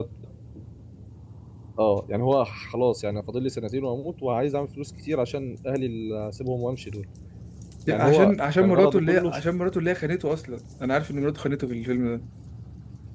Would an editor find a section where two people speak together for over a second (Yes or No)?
Yes